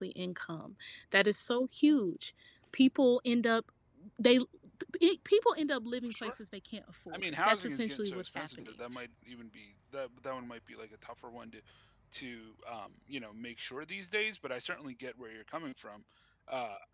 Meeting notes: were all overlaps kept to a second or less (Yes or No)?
No